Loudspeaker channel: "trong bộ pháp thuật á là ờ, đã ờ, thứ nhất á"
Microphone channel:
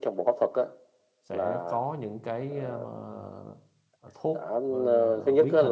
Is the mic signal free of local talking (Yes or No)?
No